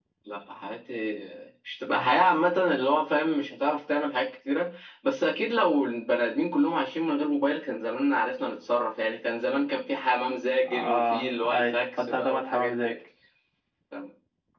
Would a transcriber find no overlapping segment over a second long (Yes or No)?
No